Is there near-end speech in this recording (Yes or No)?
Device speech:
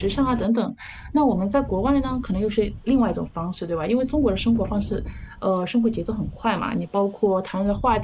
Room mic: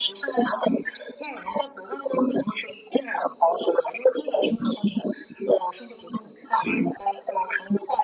No